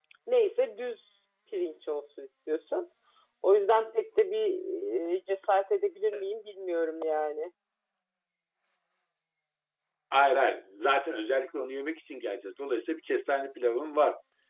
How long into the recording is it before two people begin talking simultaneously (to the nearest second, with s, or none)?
none